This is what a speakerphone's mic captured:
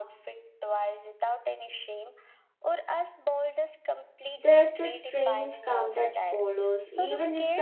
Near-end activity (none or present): present